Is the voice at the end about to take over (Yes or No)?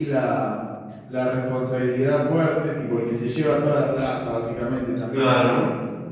No